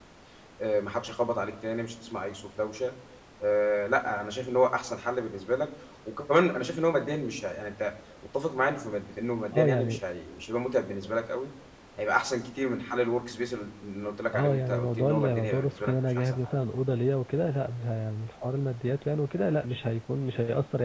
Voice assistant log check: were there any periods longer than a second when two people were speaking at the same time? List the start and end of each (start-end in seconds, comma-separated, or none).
14.3-16.5